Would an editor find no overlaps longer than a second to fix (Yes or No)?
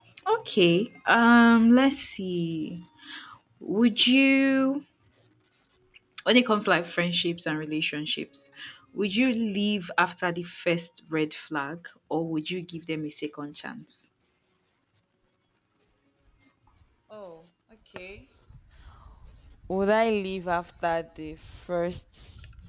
Yes